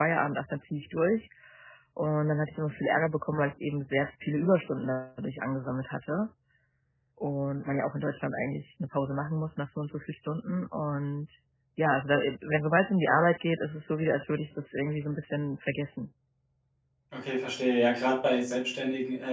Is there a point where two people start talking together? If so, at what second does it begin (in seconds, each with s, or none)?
none